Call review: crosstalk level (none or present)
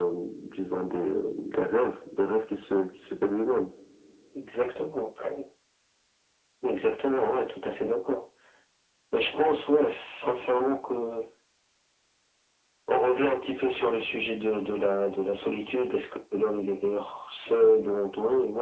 none